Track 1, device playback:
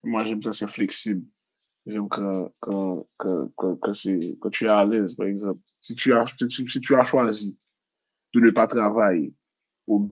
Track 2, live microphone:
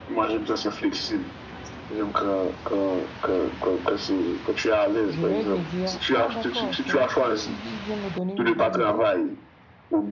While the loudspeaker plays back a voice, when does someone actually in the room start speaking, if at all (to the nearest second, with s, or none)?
5 s